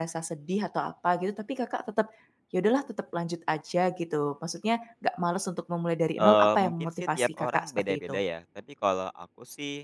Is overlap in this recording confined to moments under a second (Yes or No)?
No